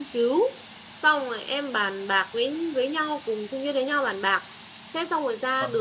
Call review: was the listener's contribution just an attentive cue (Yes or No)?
Yes